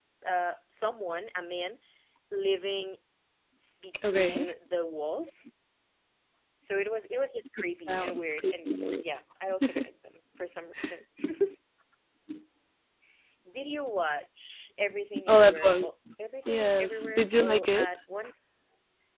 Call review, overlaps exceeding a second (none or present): present